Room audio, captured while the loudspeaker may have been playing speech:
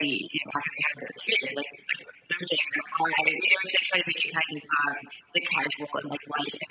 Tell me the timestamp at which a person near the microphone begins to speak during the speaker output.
none

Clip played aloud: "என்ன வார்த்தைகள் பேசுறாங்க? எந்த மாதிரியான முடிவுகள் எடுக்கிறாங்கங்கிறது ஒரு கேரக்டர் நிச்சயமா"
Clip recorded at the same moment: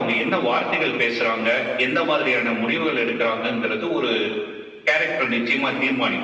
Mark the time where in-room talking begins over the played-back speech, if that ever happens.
none

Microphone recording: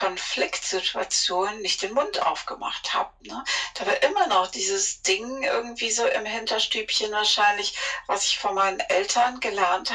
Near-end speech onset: none

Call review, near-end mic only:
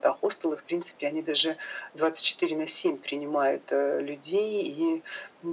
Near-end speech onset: none

